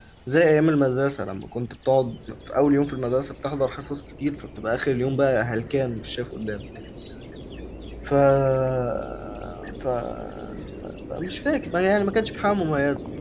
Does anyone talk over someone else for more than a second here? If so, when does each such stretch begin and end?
none

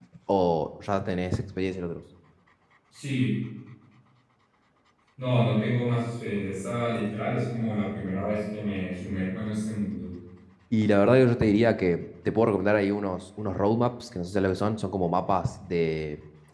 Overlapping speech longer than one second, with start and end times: none

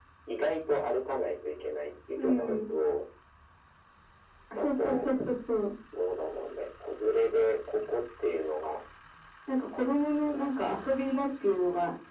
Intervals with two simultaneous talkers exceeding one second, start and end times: none

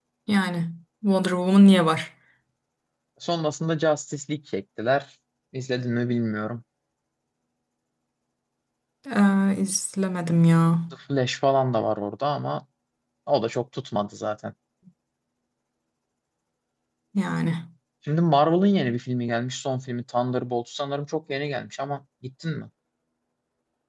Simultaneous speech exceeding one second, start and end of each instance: none

